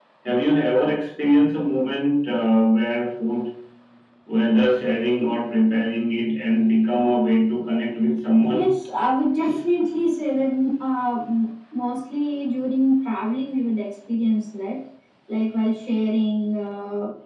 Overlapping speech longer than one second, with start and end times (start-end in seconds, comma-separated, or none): none